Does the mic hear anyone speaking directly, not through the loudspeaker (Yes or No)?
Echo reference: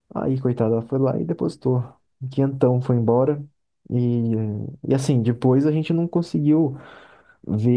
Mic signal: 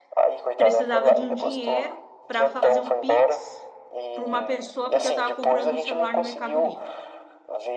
Yes